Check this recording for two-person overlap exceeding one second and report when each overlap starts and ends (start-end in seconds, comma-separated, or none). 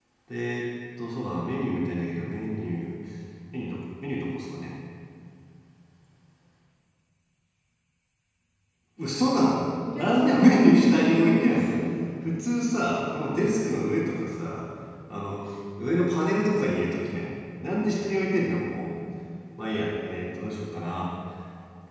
10.0-11.8